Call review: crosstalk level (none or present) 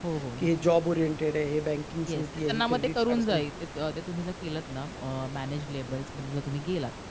present